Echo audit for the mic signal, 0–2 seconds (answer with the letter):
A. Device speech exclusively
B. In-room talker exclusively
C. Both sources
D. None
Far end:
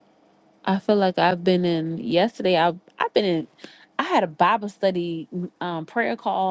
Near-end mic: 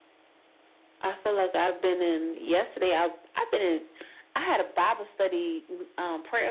A